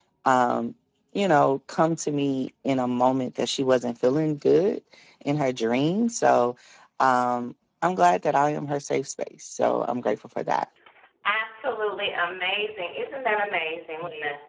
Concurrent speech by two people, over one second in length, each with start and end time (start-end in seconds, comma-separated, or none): none